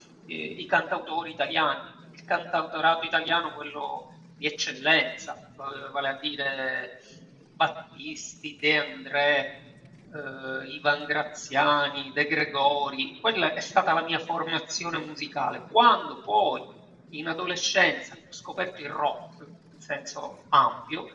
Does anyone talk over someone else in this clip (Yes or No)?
No